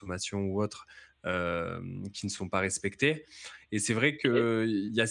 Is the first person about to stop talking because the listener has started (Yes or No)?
No